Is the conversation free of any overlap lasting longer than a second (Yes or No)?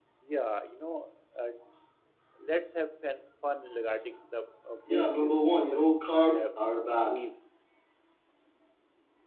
No